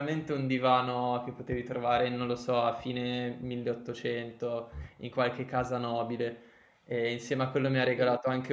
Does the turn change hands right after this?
No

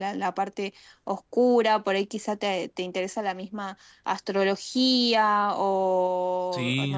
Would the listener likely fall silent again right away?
Yes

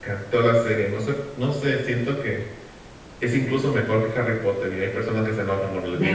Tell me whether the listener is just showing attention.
No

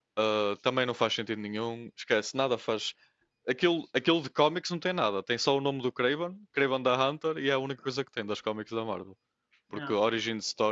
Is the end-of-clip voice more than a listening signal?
No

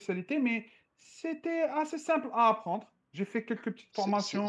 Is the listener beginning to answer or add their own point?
Yes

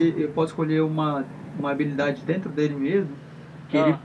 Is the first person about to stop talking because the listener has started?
No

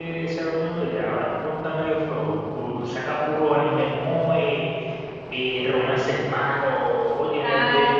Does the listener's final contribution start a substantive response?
No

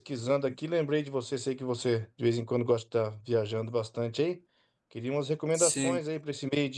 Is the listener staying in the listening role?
Yes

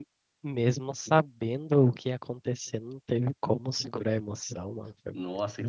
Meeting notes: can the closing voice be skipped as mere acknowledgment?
No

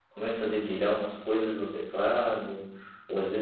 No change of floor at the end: Yes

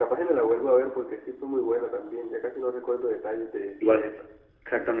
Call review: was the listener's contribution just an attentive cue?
No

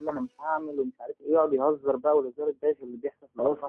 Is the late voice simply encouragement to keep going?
No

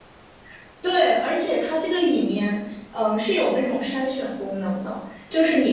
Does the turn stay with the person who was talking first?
Yes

